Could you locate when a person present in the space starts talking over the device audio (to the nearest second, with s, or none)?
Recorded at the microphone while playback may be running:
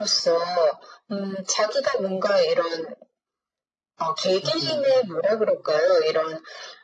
4 s